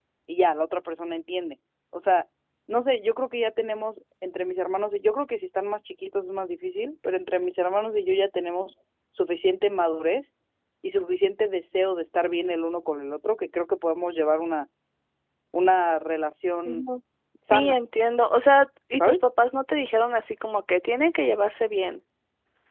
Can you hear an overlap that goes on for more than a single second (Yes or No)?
No